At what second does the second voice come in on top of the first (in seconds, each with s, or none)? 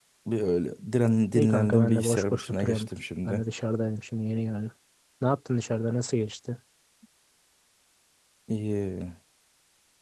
1.3 s